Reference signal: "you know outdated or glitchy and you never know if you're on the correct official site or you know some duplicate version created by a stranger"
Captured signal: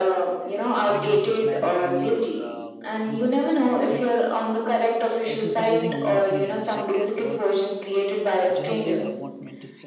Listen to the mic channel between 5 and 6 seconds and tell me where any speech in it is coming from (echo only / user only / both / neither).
both